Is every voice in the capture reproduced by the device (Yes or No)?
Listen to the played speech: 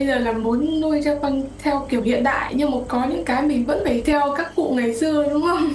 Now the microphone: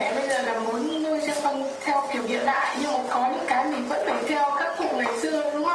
Yes